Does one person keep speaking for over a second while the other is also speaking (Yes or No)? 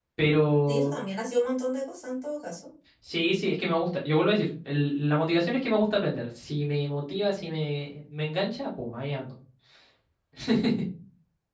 No